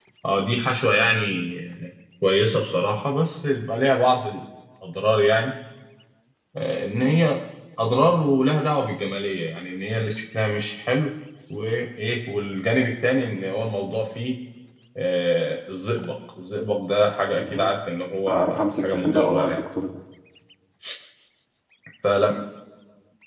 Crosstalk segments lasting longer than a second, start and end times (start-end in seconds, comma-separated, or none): 18.3-19.6